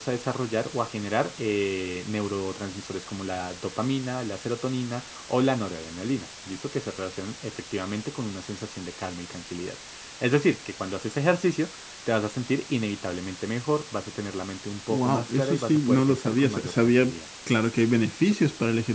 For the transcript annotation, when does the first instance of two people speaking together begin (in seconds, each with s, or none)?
14.9 s